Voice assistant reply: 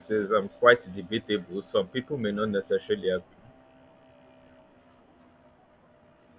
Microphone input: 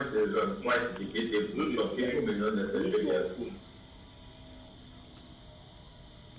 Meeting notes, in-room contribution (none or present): present